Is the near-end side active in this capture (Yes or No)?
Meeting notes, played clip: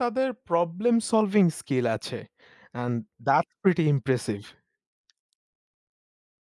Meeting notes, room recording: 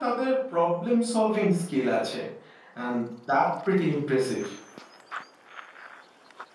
No